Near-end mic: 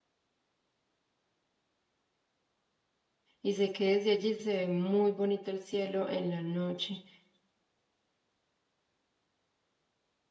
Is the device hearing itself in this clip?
No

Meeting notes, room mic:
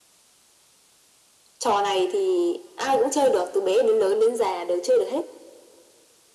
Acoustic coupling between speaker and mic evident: Yes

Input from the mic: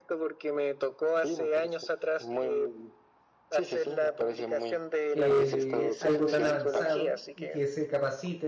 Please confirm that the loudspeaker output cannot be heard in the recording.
No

